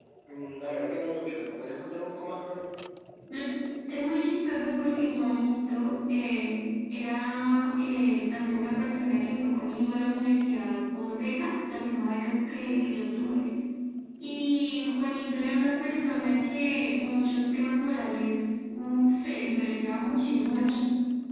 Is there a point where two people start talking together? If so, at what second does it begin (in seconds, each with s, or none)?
none